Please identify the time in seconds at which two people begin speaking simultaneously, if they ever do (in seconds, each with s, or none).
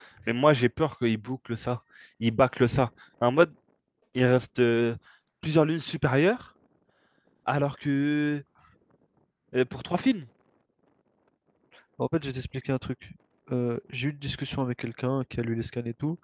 none